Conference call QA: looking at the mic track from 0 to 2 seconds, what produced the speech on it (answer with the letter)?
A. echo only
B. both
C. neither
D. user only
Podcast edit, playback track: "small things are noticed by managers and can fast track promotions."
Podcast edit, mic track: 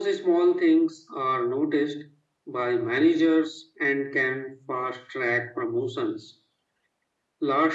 A